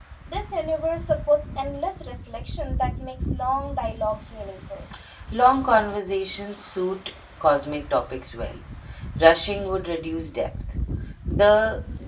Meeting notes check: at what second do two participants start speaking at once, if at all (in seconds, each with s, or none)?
none